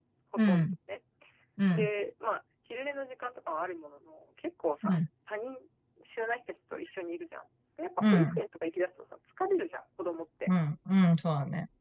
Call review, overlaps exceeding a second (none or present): none